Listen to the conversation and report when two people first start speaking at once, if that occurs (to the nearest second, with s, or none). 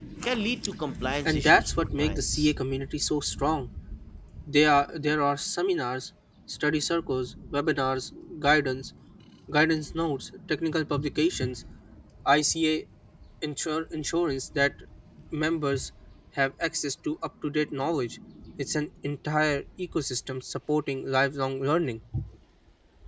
1 s